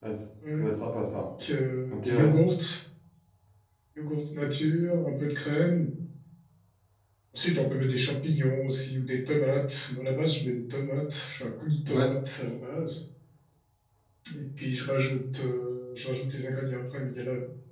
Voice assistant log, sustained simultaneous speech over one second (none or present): none